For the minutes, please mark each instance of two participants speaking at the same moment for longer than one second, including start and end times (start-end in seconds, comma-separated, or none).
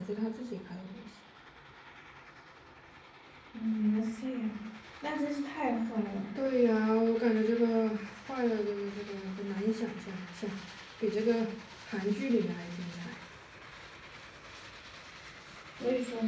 none